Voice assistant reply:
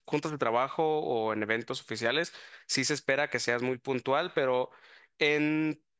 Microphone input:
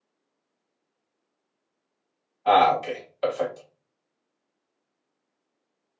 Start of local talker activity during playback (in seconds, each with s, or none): 2.4 s